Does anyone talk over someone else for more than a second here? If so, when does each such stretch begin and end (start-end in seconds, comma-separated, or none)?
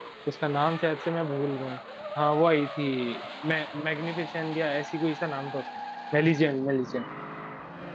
none